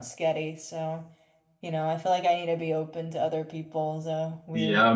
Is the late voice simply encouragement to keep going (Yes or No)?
No